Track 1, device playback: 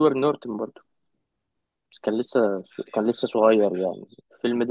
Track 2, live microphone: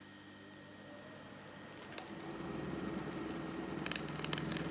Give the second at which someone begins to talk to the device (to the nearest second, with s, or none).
none